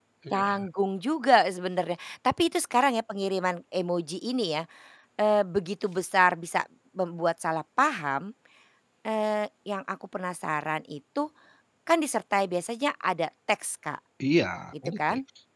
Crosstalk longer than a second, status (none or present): none